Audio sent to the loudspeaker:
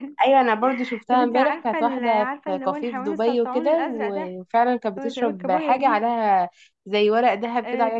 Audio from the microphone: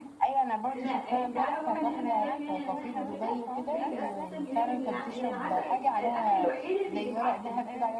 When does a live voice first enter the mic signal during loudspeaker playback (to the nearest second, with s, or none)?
1 s